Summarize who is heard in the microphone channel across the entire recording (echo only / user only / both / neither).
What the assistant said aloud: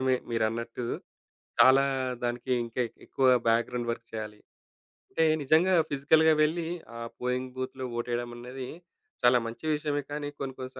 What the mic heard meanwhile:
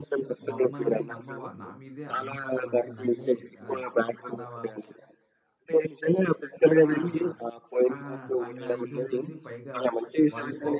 both